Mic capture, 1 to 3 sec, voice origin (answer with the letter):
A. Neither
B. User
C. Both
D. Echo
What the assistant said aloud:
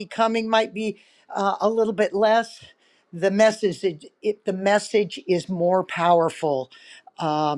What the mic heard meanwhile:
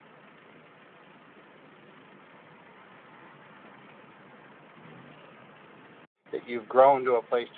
A